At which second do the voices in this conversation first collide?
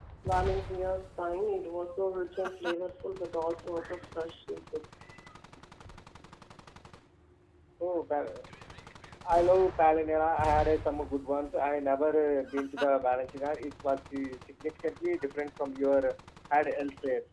none

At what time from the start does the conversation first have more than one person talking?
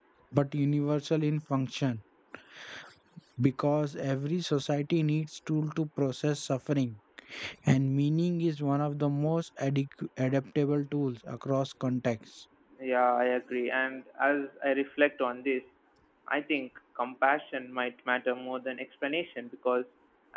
none

